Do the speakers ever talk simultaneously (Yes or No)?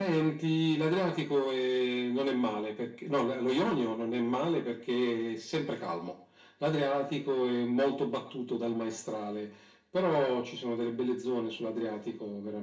No